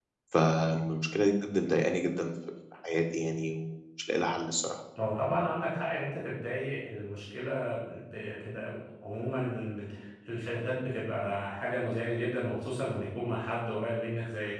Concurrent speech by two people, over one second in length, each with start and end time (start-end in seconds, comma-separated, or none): none